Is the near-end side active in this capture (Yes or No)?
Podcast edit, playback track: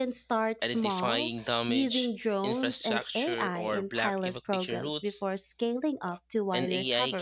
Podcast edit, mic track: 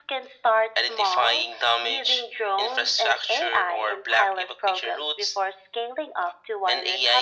No